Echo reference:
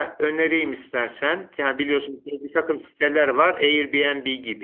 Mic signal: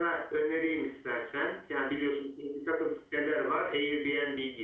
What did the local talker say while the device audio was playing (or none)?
none